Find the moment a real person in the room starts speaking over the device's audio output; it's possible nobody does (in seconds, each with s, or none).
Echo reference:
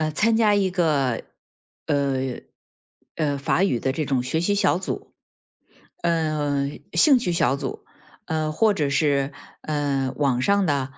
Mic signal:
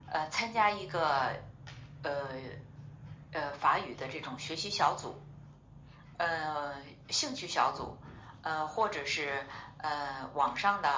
none